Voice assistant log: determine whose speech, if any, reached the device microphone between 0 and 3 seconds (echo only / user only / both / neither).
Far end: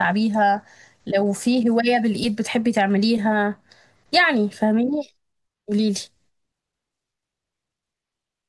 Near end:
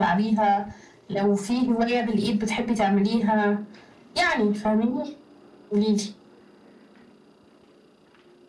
echo only